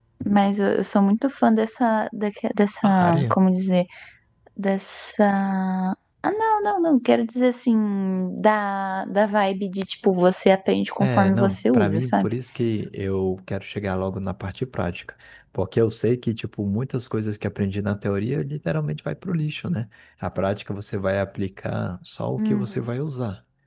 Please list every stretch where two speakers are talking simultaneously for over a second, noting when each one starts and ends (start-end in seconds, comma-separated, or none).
11.0-12.3